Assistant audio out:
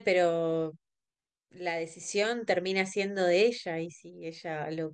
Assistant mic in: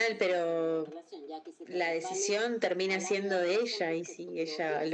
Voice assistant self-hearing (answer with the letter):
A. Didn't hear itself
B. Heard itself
B